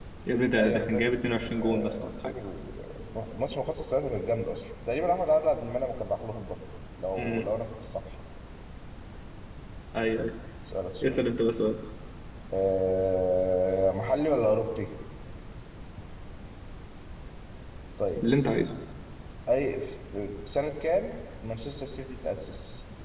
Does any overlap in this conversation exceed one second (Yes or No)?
Yes